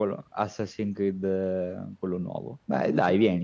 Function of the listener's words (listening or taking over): taking over